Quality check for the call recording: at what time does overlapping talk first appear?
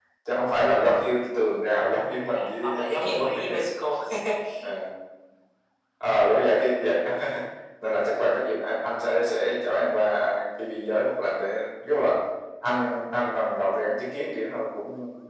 2.2 s

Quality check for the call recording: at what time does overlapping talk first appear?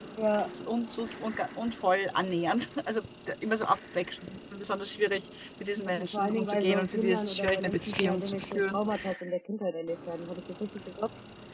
5.8 s

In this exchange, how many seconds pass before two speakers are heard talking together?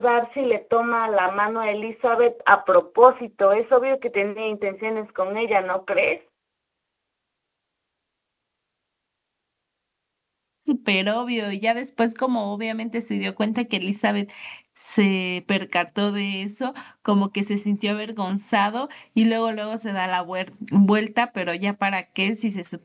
none

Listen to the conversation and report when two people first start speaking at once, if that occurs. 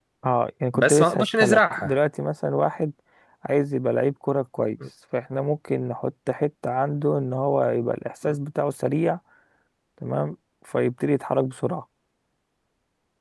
0.7 s

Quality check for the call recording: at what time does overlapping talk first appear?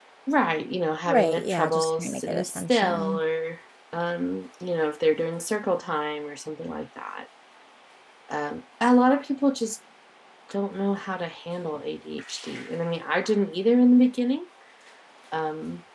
1.1 s

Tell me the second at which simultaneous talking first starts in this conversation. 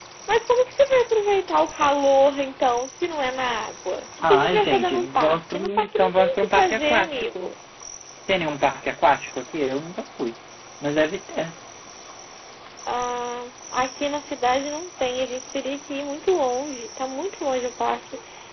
4.2 s

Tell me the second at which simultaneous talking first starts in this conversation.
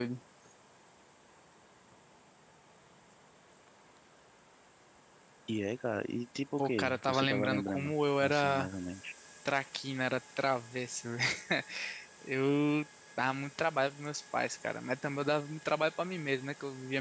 6.6 s

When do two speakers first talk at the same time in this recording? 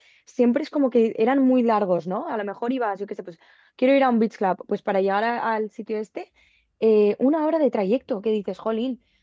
none

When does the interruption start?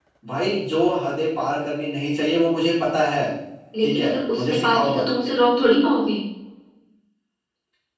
3.8 s

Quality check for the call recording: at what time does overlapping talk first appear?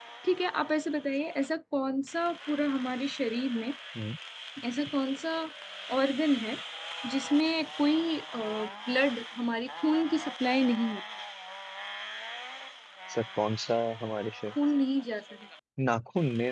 none

